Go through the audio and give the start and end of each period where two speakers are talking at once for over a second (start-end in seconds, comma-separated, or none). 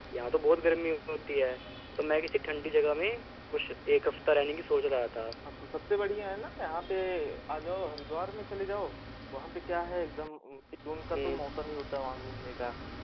none